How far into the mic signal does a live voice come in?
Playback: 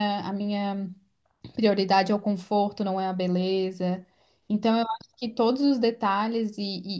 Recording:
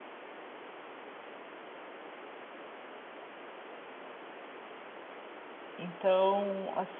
5.8 s

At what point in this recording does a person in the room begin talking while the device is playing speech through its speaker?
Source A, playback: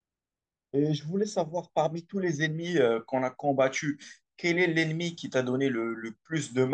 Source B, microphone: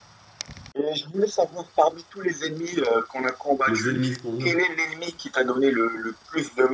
3.6 s

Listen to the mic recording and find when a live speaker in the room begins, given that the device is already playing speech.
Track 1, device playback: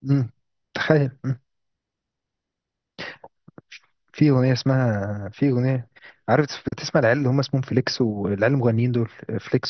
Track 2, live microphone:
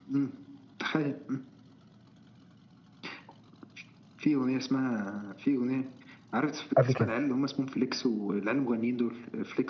6.8 s

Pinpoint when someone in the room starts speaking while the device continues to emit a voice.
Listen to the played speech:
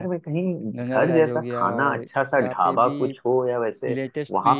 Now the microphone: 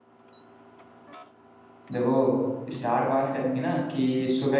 1.9 s

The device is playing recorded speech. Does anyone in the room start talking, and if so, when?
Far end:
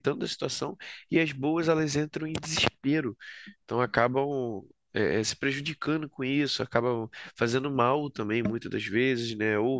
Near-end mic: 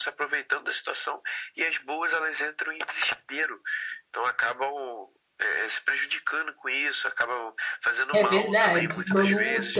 8.1 s

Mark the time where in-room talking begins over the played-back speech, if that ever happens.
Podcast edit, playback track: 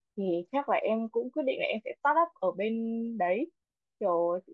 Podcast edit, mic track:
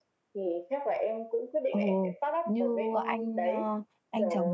1.7 s

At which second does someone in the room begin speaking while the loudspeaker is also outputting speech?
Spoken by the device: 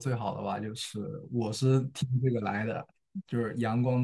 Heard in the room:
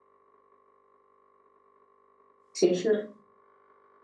2.5 s

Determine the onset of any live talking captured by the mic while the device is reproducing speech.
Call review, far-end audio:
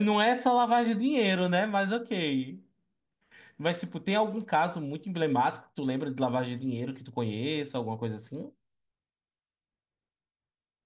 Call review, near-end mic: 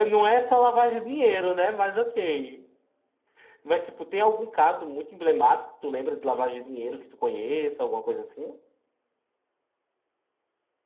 none

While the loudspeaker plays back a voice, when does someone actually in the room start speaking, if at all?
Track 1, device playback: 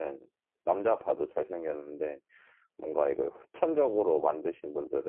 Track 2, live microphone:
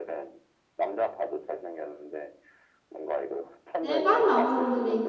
3.8 s

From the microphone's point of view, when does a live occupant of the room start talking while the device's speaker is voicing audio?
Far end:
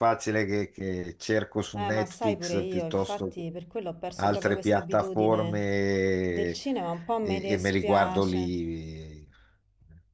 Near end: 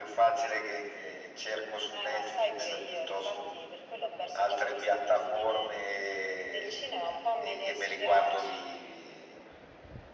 none

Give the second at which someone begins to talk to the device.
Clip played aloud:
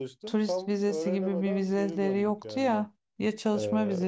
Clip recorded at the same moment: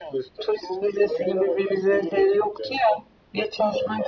none

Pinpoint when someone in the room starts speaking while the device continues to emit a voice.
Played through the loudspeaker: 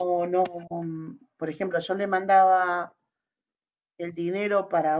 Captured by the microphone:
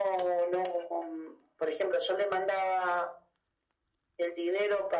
none

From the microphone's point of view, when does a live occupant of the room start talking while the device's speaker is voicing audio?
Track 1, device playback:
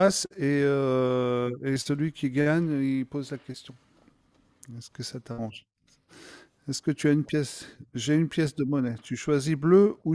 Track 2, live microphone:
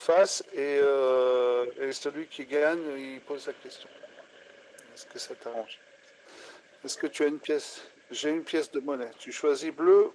none

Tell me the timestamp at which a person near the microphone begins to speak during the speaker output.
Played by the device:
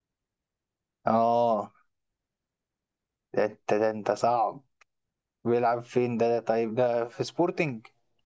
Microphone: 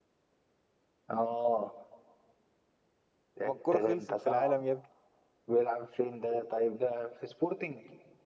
3.4 s

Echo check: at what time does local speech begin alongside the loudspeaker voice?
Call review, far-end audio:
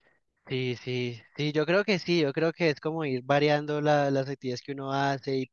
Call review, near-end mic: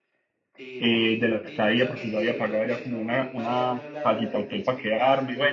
0.8 s

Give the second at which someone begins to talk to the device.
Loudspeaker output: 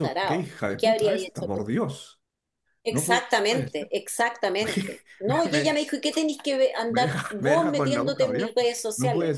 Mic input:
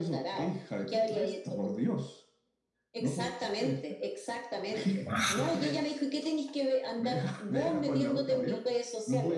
5.0 s

